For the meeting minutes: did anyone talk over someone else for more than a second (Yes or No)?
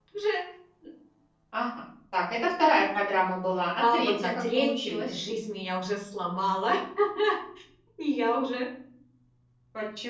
Yes